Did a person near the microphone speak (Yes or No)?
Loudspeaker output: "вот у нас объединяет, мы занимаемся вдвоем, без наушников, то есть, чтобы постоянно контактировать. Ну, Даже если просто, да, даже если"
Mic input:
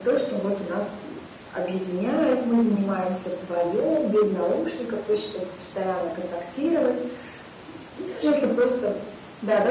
No